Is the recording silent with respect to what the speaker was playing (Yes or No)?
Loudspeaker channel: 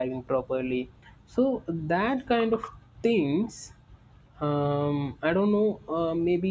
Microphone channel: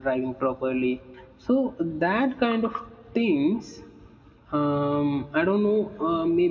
No